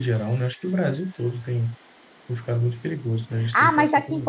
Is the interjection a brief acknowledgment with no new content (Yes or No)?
No